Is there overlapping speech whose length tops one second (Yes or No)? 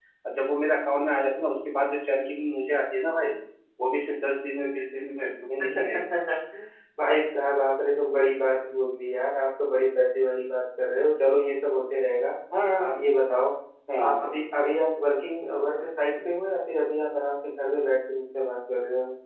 No